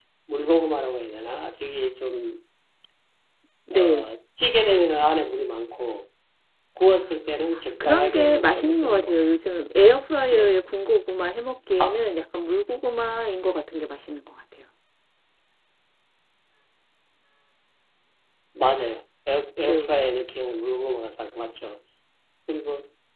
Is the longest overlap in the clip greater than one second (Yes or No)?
Yes